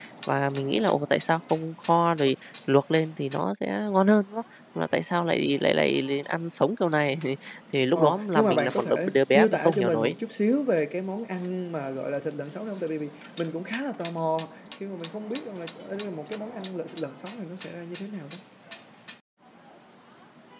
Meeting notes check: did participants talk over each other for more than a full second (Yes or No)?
Yes